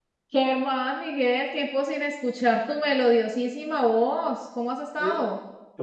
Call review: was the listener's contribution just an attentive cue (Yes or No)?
No